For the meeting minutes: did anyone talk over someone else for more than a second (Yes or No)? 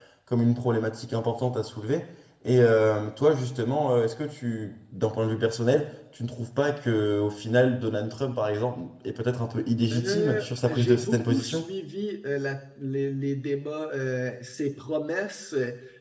Yes